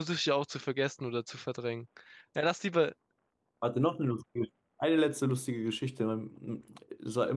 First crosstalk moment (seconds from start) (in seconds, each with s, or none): none